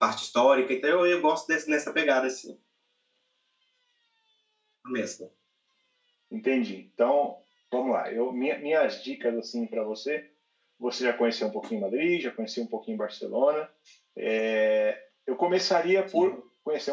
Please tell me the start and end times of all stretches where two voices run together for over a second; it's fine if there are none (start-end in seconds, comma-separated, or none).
none